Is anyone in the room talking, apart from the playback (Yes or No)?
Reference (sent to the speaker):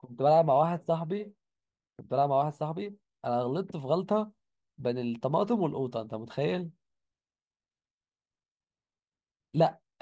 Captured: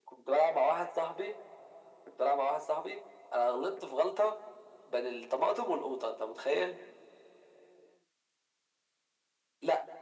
No